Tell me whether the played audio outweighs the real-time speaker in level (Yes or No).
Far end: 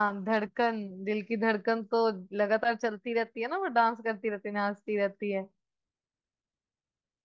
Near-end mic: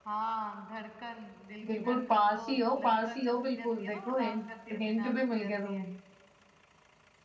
No